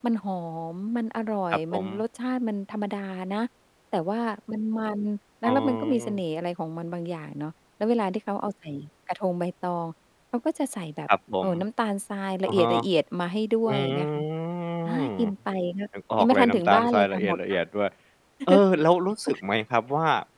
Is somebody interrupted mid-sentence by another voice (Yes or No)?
Yes